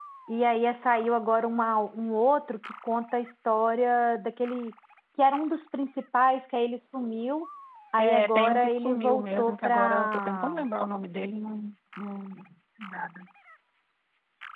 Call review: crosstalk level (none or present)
present